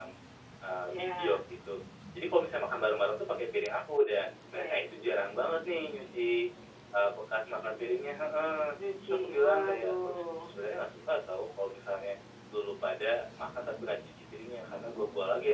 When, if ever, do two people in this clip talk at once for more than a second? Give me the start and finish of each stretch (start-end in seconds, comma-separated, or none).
9.1-10.5